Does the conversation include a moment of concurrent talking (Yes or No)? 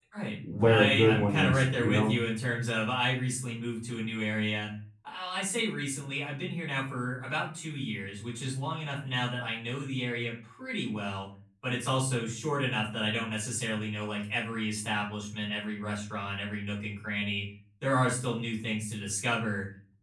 Yes